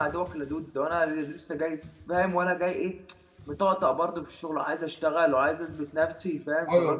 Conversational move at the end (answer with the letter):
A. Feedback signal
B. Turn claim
B